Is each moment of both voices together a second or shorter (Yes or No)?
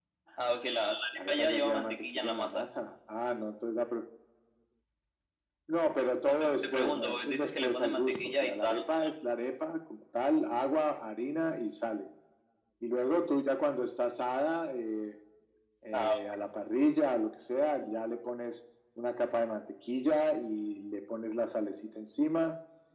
No